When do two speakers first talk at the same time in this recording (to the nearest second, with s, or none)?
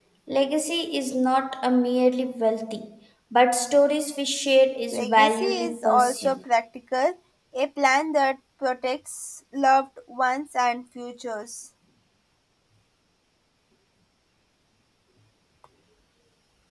5 s